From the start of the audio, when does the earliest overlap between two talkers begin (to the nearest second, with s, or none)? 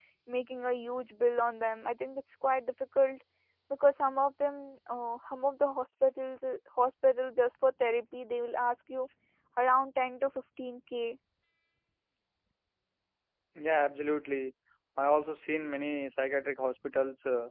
none